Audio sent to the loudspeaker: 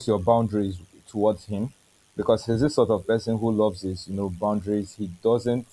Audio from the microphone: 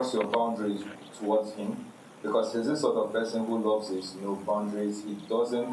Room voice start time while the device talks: none

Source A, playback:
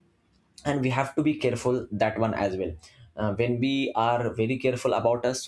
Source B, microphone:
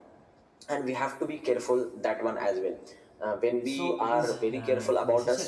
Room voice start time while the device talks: 3.6 s

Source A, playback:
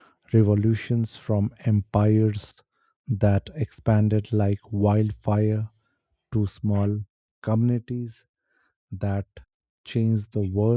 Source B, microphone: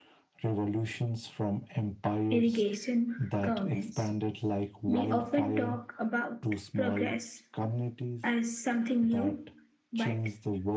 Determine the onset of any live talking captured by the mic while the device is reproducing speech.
2.3 s

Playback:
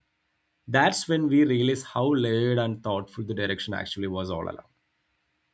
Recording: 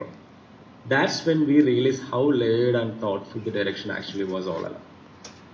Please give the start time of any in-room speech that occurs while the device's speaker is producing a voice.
none

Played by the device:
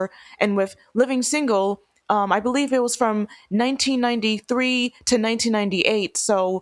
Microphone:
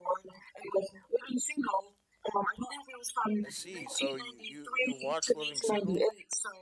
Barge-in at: 3.4 s

